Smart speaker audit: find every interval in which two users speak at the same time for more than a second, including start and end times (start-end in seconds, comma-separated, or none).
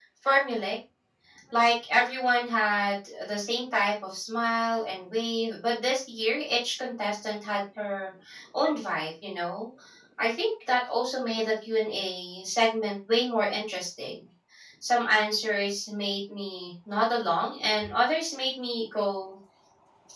none